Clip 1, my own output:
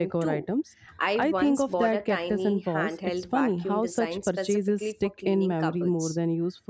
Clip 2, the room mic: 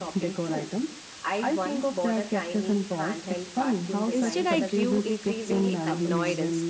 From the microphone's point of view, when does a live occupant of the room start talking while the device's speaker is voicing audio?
4.1 s

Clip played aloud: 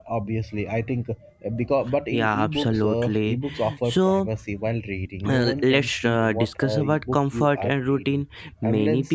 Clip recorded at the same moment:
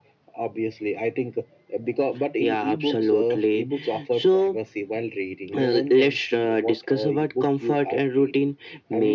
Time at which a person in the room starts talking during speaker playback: none

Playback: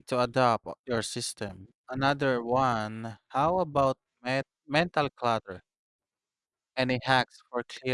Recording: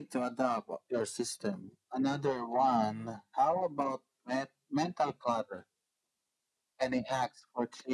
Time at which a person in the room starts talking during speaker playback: none

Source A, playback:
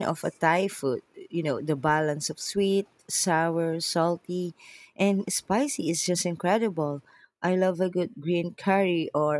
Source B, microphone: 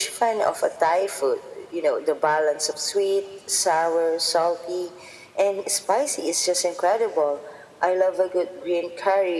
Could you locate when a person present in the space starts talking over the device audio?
none

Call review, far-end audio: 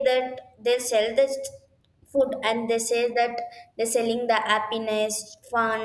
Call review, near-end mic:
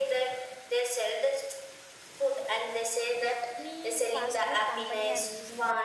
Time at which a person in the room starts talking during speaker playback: 3.2 s

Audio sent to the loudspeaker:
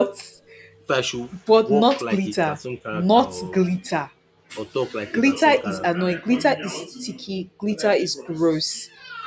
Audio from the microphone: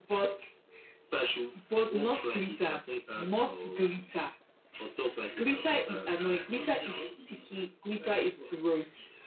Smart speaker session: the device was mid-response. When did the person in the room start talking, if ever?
none

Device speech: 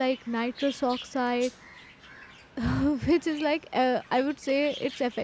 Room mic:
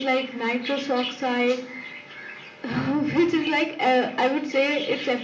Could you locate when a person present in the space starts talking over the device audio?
none

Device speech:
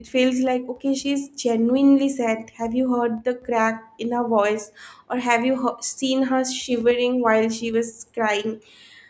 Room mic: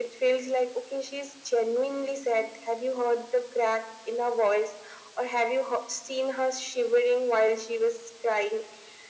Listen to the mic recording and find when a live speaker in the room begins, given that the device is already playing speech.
none

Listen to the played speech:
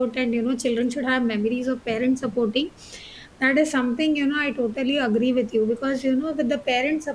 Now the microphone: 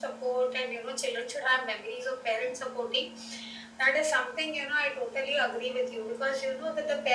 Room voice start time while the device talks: none

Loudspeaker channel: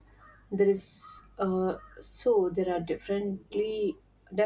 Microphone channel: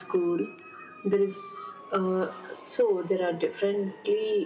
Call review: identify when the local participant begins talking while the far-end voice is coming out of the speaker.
none

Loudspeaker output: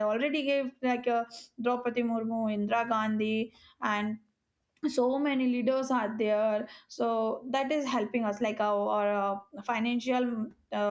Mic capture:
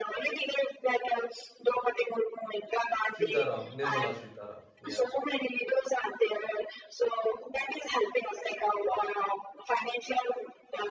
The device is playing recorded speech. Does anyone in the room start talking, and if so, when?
3.1 s

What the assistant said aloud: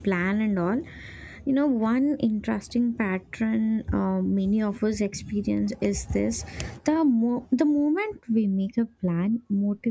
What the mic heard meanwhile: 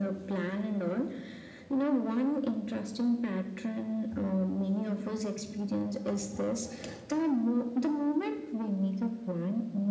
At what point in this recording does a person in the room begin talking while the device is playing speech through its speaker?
none

